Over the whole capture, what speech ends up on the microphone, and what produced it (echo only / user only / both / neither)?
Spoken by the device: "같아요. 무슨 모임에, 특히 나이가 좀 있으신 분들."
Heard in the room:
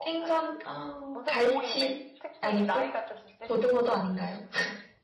both